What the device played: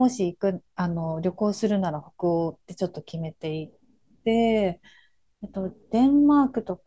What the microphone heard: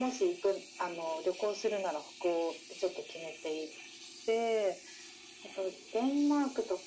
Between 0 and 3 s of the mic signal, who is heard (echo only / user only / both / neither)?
echo only